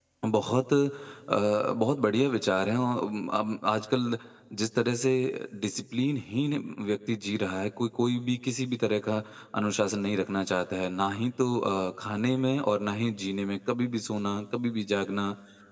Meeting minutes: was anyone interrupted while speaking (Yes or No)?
No